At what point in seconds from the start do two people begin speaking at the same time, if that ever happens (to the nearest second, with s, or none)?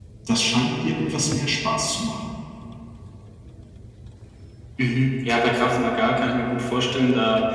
none